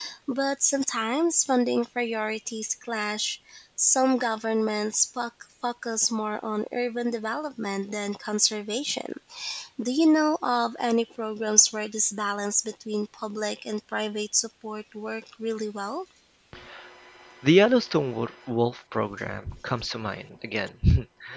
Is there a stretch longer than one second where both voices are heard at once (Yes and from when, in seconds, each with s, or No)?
No